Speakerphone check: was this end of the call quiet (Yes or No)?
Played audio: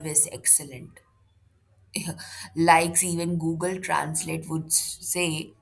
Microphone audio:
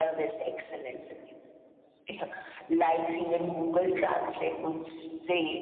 Yes